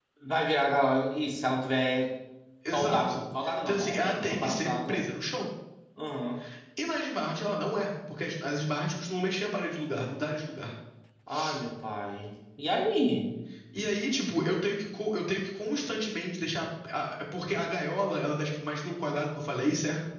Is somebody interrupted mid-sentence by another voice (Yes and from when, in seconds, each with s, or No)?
Yes, from 2.7 s